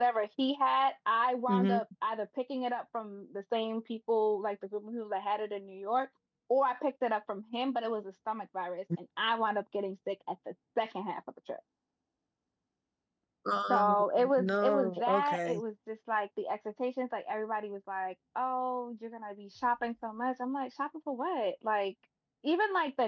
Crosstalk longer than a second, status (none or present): present